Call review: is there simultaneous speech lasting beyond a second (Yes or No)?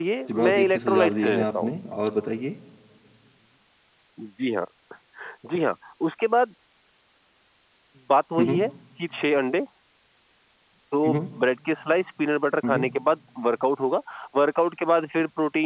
Yes